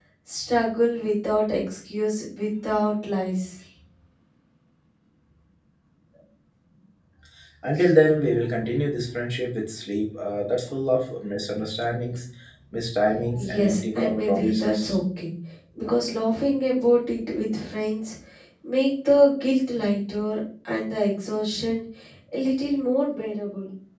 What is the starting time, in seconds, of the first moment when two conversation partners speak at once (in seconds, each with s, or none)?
13.4 s